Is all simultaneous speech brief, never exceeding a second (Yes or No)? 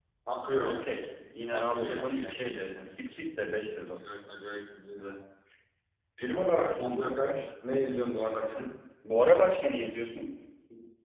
No